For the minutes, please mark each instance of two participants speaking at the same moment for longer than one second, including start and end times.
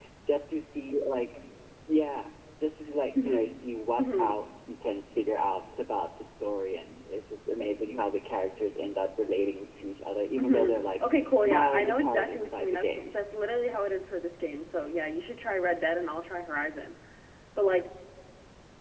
10.4-13.2

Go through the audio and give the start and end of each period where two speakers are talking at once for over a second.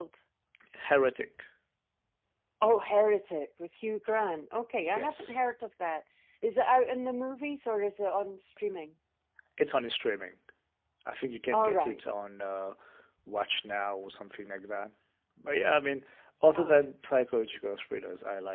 none

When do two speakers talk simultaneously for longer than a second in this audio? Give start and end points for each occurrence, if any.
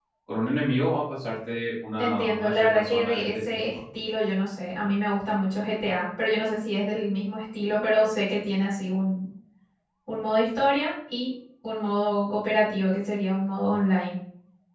2.0-3.6

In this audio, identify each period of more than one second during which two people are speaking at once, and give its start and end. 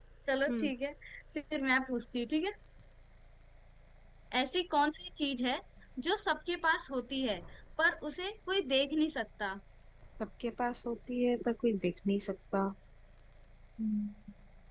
none

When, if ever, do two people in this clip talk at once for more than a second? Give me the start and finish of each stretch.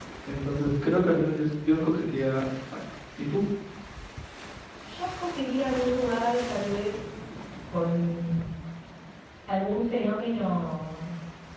none

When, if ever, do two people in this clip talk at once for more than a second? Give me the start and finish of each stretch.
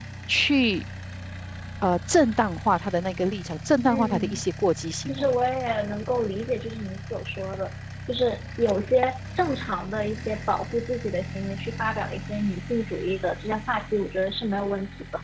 none

